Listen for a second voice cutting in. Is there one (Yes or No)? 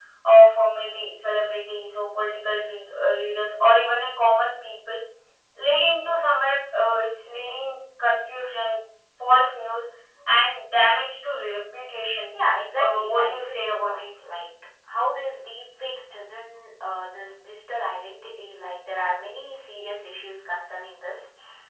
Yes